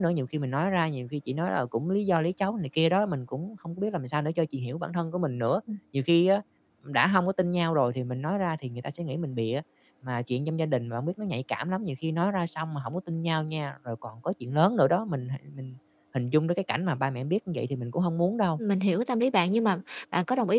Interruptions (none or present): none